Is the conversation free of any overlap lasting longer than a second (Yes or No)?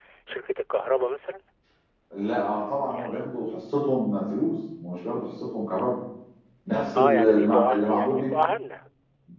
No